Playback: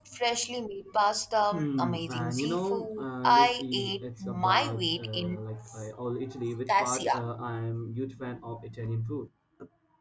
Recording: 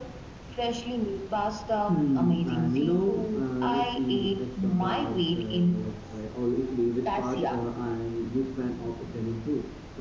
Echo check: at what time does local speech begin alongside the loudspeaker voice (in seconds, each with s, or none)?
none